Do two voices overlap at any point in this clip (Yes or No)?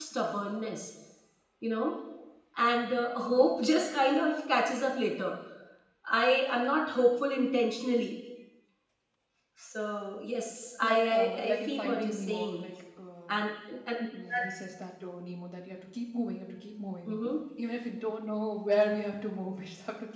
Yes